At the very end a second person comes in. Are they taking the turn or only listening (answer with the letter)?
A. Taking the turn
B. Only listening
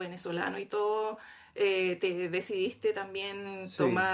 B